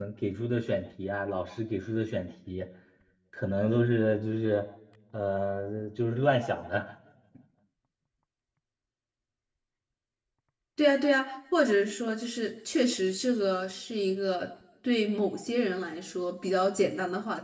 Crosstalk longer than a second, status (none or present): none